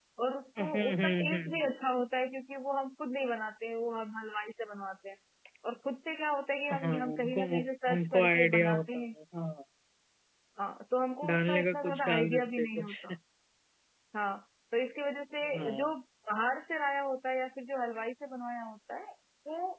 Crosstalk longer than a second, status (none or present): present